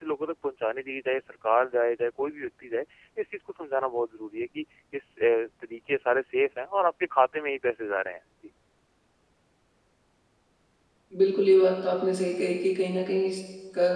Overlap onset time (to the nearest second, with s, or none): none